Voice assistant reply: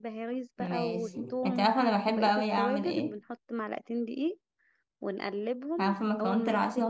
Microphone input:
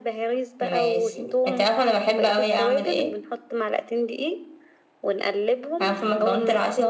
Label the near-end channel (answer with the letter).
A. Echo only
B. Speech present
B